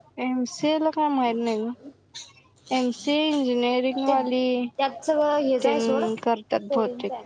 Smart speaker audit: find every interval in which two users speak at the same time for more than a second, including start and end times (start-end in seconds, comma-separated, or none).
none